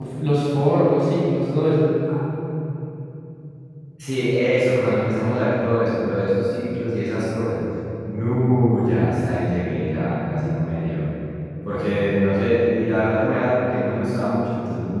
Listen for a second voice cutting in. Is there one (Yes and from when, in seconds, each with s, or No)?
No